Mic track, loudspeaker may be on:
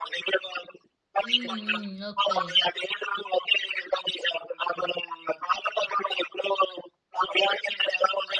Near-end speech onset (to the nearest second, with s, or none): 1 s